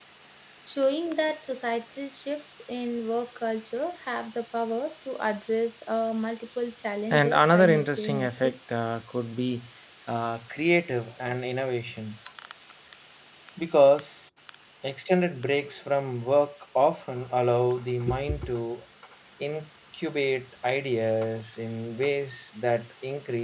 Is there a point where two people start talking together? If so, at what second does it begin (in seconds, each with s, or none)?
7.1 s